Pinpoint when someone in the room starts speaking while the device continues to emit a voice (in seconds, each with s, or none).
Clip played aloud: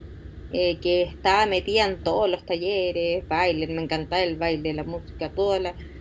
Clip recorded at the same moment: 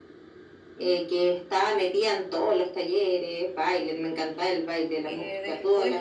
5.0 s